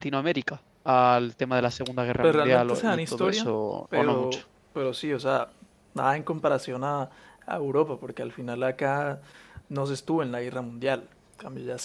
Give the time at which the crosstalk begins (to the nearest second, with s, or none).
2 s